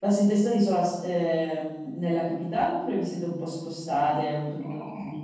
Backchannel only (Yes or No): No